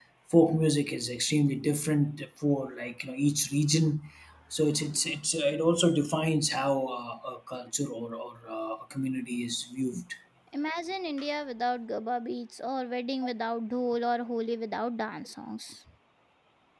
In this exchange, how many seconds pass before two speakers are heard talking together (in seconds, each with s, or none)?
none